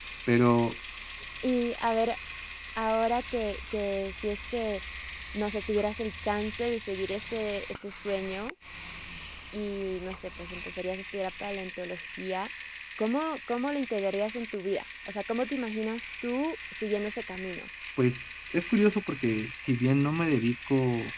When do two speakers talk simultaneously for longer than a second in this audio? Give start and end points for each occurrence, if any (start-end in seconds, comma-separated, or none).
none